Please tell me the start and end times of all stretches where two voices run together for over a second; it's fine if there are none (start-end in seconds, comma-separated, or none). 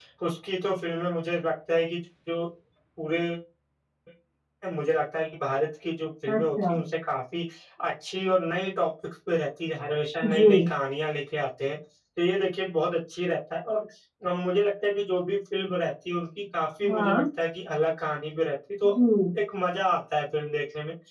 none